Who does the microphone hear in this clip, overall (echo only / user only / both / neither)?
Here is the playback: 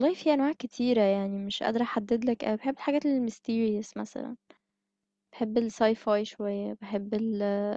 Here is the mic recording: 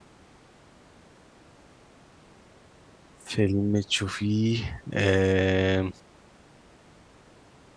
user only